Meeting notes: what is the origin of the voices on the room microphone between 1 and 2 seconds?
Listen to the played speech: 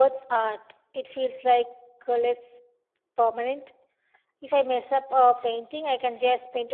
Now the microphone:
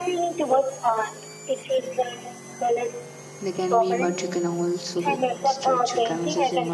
echo only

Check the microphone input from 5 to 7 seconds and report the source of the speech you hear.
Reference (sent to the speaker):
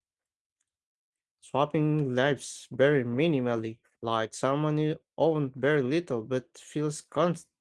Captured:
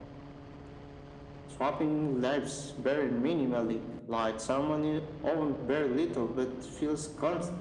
echo only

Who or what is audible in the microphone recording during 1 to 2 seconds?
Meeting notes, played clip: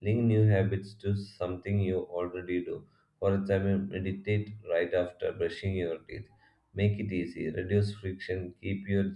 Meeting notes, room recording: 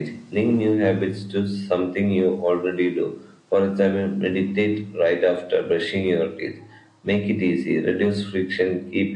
echo only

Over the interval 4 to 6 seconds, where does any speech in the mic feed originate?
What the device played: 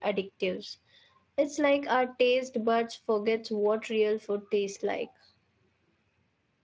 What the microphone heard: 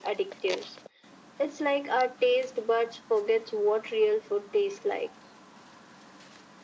echo only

